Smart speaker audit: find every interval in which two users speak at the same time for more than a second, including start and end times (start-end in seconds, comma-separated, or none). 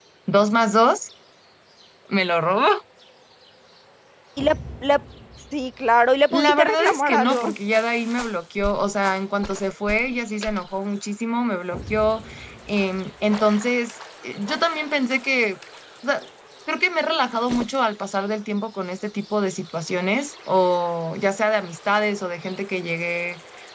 6.3-7.5